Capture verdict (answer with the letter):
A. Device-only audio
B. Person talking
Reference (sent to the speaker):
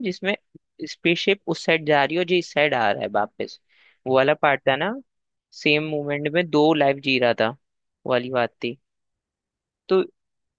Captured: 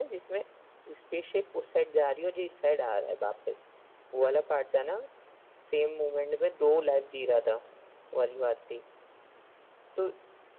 A